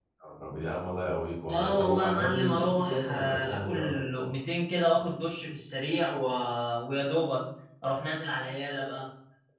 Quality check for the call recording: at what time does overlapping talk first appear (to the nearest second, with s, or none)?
1 s